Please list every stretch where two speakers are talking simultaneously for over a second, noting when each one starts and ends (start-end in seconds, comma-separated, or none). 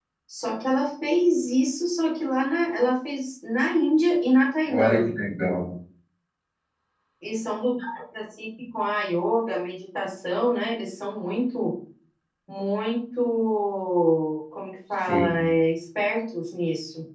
none